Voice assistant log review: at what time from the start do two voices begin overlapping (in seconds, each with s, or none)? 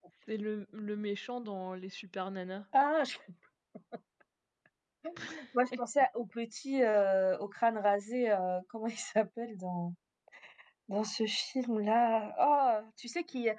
none